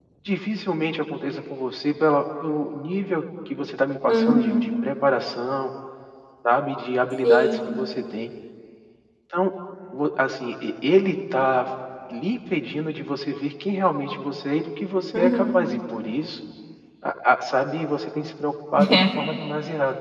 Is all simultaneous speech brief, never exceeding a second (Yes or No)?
Yes